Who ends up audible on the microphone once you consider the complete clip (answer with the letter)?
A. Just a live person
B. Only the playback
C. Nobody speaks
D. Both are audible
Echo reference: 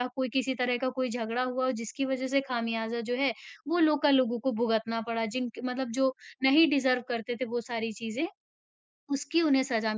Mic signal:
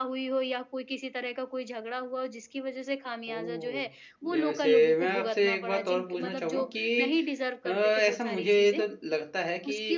D